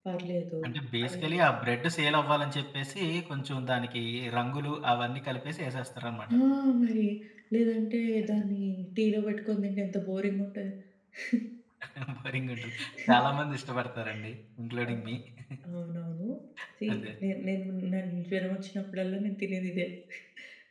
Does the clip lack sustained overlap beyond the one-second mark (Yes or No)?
Yes